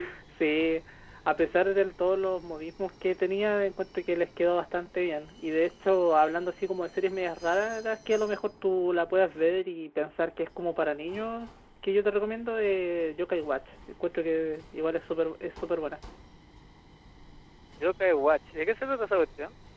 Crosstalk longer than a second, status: none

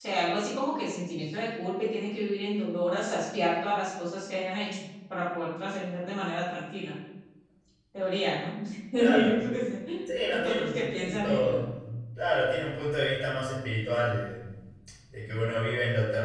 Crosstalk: present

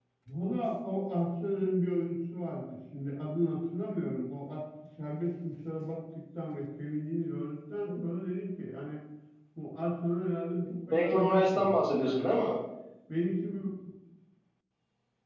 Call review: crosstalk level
present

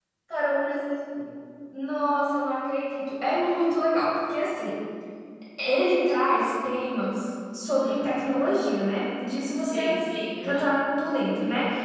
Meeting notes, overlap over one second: none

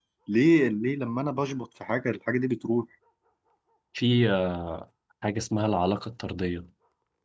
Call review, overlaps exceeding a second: none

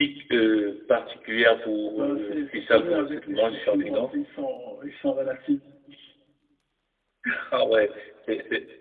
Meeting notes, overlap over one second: present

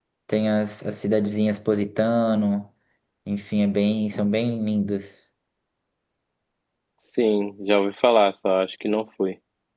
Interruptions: none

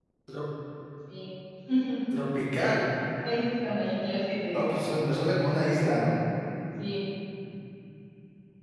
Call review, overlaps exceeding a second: none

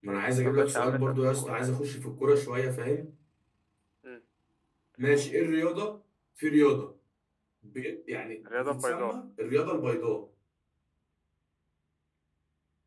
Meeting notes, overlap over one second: present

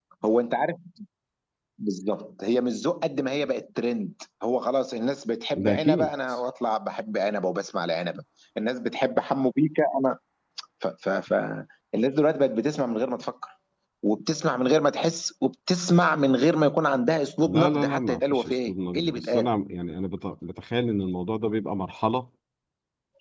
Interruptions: present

